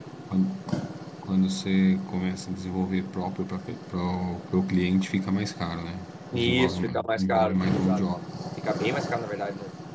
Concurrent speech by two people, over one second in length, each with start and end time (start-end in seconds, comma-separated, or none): 6.3-8.0